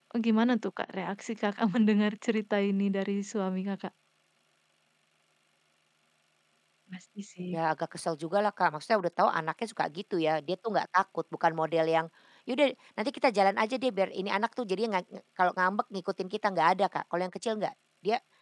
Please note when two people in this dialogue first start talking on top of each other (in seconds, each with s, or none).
none